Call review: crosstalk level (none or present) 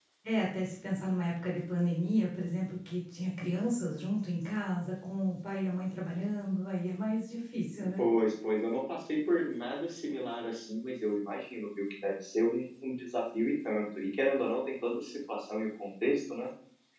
none